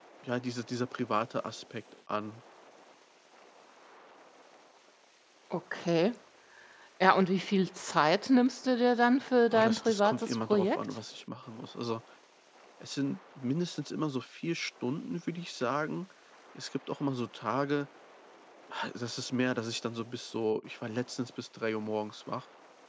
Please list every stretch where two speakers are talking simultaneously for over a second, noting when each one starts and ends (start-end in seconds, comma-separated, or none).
9.5-10.8